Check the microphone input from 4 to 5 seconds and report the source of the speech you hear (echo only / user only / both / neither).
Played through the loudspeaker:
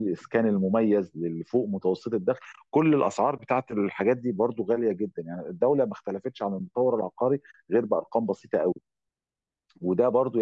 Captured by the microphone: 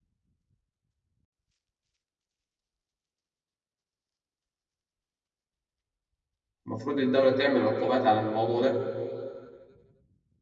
neither